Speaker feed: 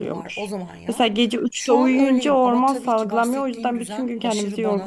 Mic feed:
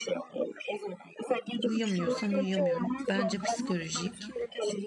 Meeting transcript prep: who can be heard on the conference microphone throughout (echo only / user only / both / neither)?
both